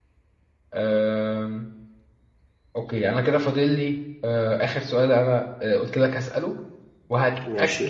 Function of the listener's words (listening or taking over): listening